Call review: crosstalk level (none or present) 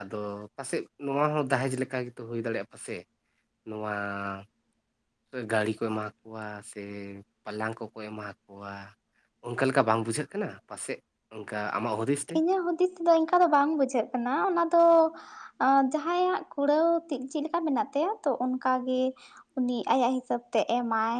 none